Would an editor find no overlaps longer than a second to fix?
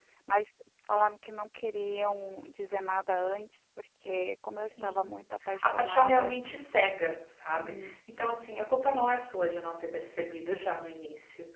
No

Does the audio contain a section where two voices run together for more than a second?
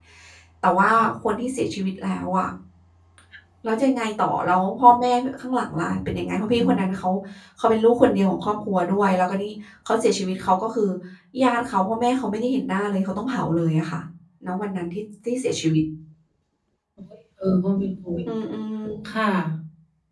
No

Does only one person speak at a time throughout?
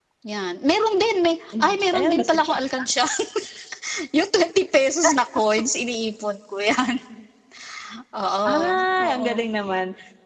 No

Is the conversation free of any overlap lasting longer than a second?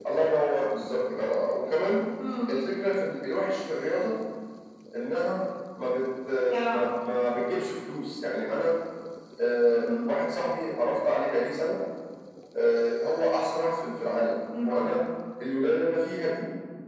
Yes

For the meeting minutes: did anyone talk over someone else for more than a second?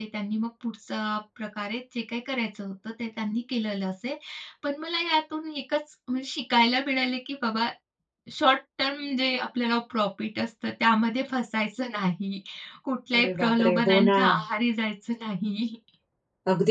Yes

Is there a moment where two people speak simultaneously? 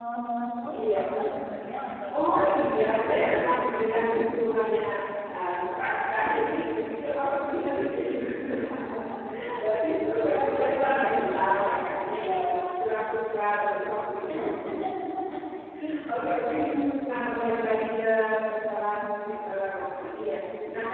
Yes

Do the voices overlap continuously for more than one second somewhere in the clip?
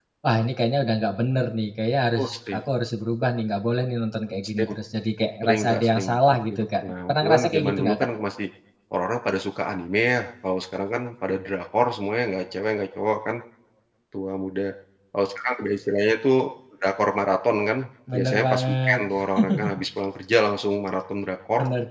Yes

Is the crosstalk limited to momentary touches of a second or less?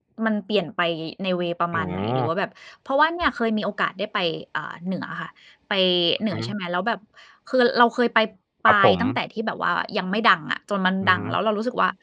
Yes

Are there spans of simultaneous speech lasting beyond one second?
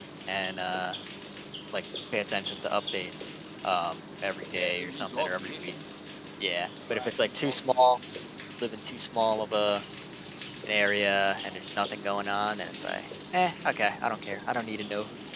Yes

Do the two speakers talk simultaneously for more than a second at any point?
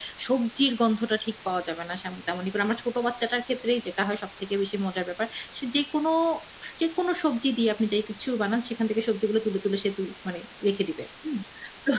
No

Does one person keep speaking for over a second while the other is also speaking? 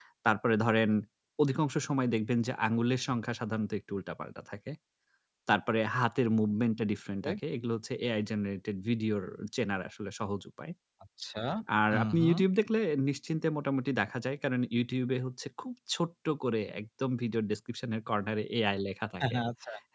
No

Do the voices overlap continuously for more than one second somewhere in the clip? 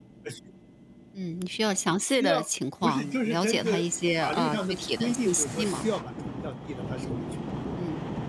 Yes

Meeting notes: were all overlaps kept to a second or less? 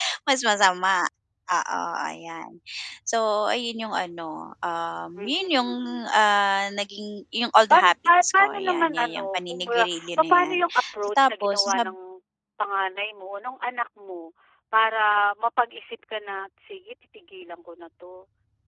No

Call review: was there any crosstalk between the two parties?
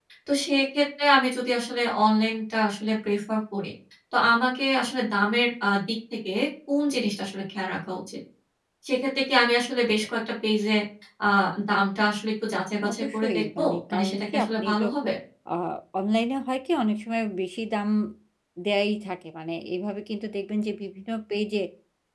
Yes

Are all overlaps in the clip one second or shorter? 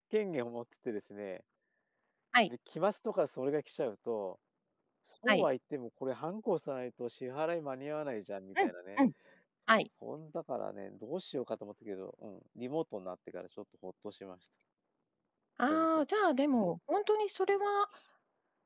Yes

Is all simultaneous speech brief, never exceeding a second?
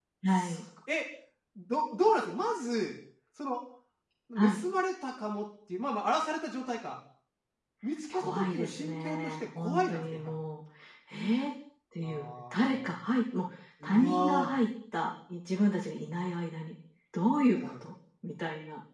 No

